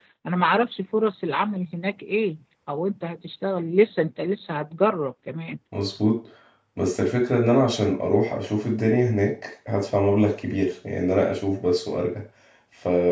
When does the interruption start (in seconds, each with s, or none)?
none